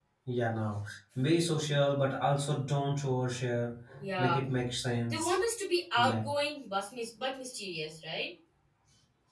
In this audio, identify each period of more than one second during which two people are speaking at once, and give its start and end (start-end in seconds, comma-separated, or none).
none